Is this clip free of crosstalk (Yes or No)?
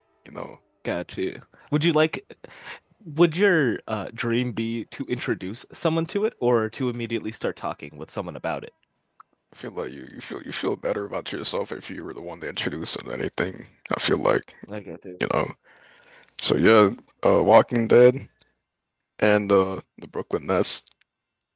Yes